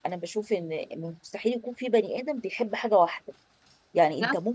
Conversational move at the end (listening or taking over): listening